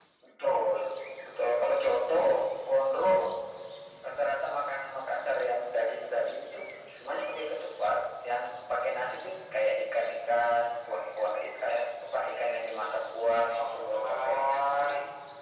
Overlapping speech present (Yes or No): Yes